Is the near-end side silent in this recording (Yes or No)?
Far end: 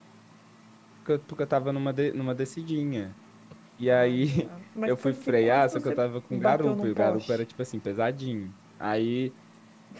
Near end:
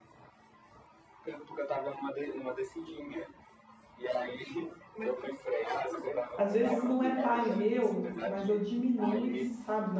No